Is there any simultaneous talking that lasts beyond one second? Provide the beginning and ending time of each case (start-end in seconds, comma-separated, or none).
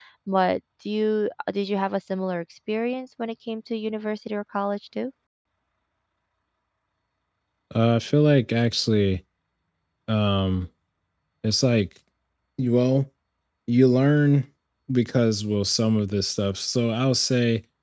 none